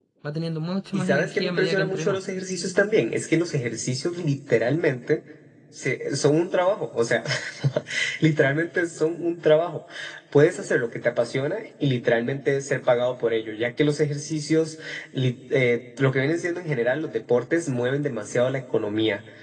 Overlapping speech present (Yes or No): Yes